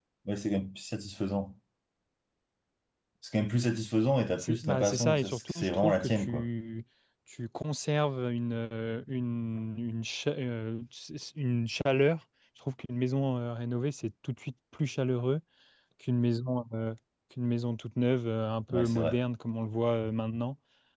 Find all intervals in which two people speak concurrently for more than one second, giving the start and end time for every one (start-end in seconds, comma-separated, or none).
4.3-6.5